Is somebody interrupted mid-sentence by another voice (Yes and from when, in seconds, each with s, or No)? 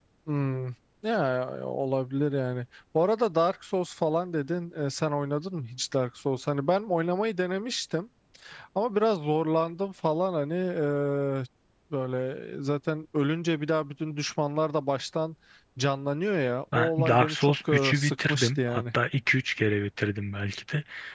Yes, from 16.7 s